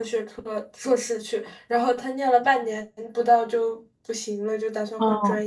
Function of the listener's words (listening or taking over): listening